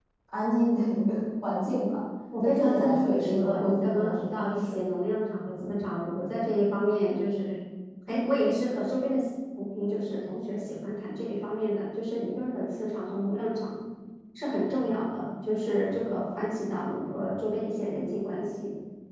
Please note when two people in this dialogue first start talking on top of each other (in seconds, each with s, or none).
2.3 s